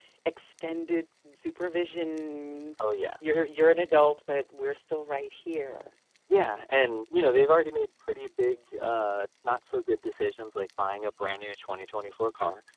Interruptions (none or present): none